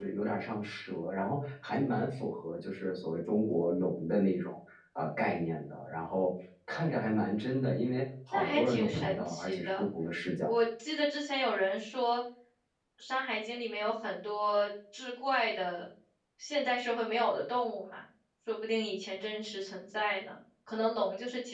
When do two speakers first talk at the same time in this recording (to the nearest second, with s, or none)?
8 s